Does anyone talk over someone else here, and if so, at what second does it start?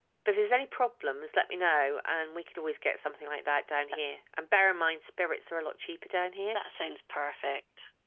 none

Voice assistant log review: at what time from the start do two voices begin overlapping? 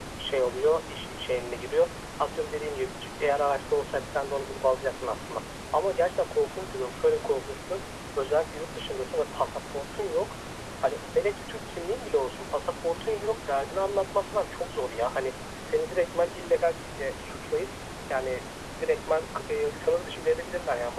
none

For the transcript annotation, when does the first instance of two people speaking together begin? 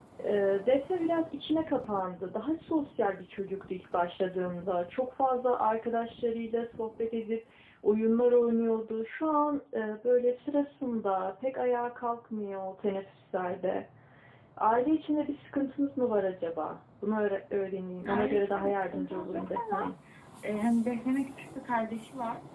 18.0 s

